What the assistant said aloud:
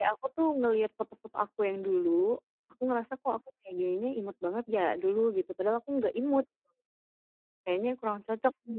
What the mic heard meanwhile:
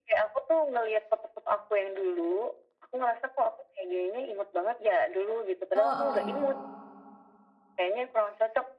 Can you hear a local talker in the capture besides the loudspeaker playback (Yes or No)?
Yes